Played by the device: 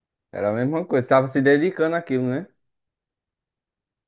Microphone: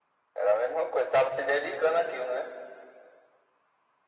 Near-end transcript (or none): none